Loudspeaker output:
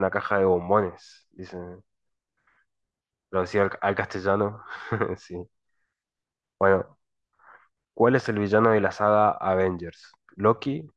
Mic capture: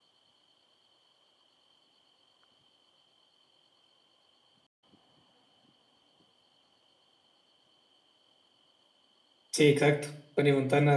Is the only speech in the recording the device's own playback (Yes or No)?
No